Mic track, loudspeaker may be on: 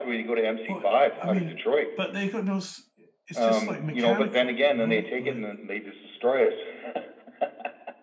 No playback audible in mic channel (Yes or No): No